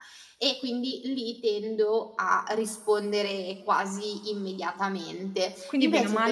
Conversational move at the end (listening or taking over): taking over